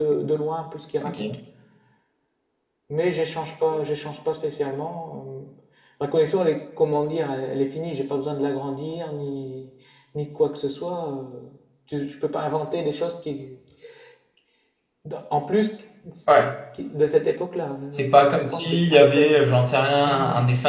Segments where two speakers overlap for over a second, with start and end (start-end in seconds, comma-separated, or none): 17.9-19.4